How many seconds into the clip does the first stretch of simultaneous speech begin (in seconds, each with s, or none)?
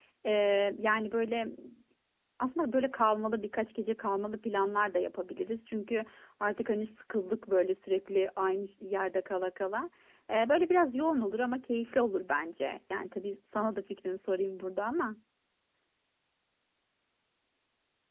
none